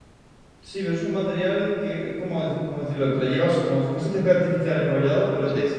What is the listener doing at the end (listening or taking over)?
listening